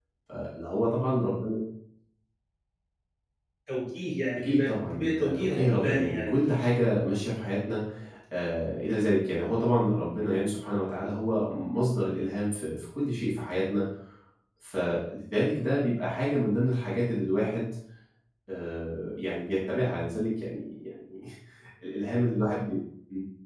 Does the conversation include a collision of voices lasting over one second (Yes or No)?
Yes